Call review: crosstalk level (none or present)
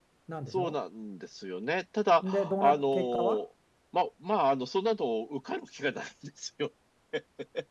present